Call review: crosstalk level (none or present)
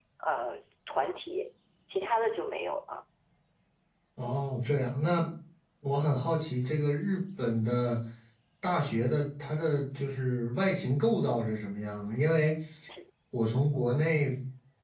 none